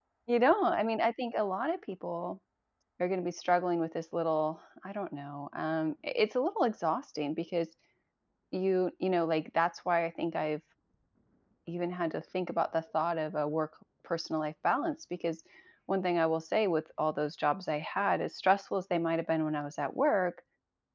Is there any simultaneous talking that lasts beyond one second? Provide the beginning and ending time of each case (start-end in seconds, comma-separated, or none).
none